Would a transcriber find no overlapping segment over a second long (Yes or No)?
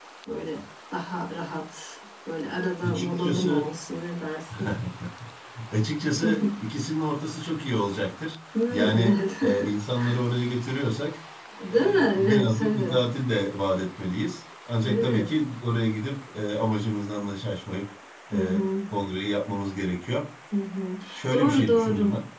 No